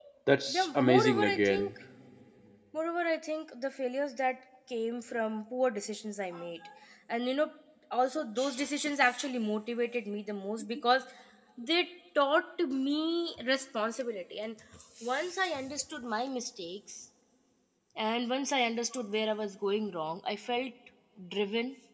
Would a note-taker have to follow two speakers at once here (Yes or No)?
Yes